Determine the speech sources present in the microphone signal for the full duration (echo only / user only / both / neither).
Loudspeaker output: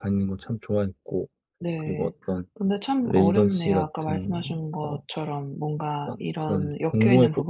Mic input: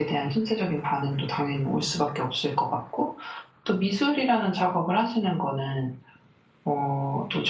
user only